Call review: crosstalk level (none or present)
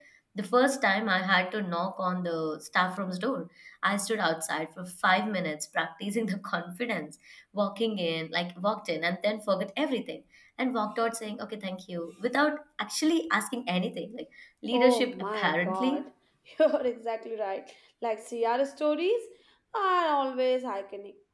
present